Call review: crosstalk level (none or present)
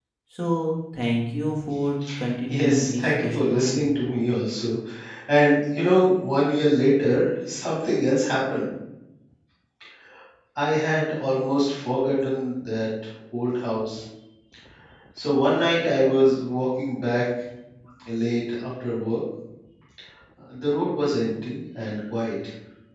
present